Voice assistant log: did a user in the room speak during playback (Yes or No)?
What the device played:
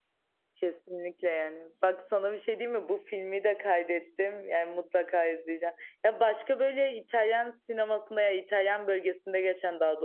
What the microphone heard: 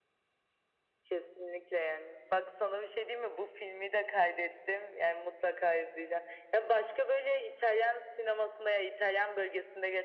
No